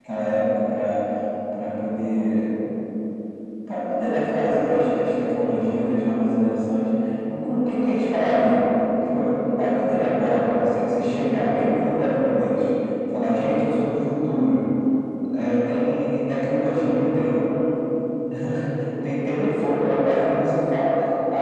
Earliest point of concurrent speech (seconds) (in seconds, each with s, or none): none